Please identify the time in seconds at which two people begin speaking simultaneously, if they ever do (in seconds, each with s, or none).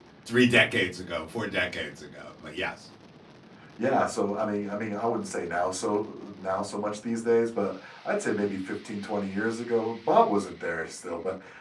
none